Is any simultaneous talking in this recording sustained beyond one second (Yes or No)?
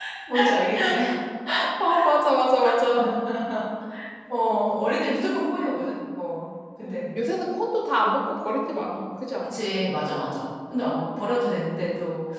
No